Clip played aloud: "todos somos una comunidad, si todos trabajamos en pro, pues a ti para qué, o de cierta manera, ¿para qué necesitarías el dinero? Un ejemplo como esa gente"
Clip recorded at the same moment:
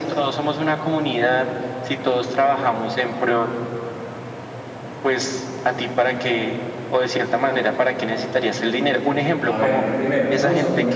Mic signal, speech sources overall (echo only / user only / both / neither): both